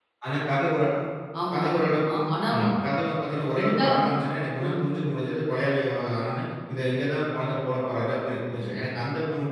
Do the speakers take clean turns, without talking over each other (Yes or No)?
No